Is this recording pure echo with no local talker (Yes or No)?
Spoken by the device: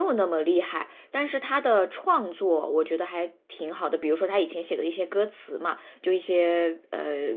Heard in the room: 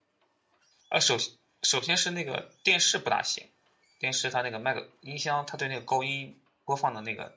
No